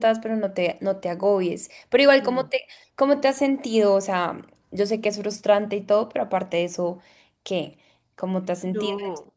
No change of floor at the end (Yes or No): No